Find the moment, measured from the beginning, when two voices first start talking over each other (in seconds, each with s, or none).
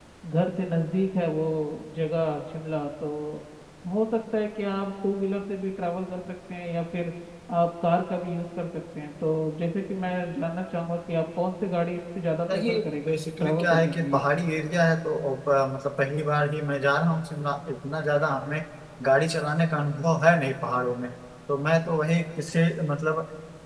12.5 s